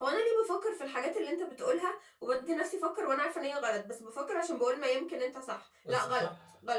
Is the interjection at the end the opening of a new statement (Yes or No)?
No